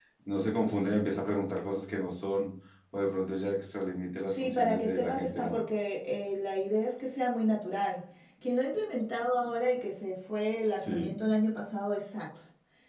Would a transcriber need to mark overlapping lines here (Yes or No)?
Yes